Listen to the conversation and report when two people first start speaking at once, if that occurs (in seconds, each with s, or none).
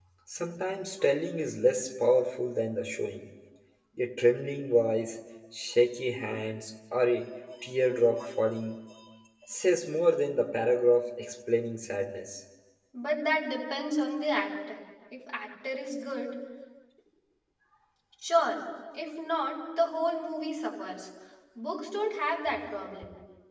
none